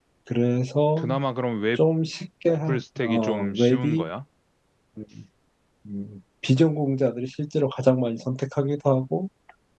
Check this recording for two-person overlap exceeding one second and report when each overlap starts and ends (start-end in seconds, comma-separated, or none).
2.7-4.1